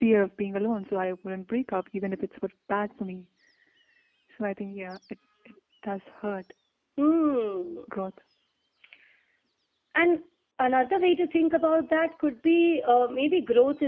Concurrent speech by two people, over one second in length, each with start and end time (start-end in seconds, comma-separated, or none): none